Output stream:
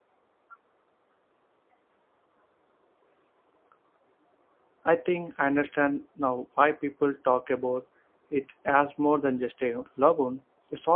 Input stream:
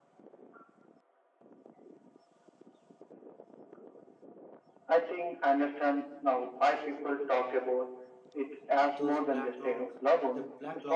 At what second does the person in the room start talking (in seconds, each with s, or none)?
8.9 s